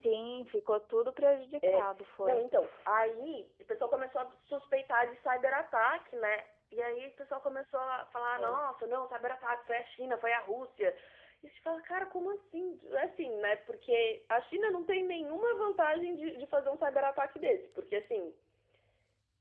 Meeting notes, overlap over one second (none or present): none